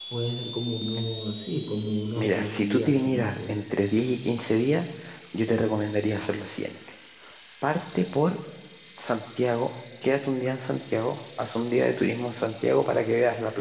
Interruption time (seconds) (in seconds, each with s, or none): 2.2 s